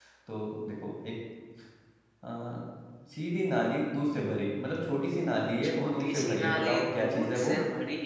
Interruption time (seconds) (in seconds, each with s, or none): 5.8 s